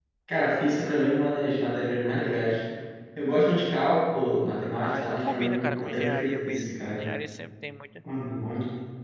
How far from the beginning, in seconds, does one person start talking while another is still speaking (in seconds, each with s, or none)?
4.7 s